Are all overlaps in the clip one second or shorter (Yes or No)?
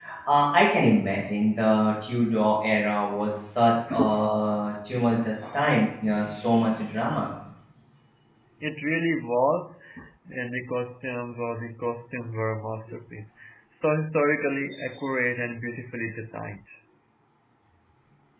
Yes